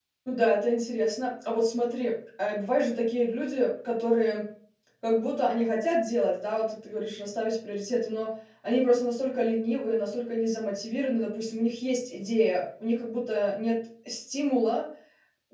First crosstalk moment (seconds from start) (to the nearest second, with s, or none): none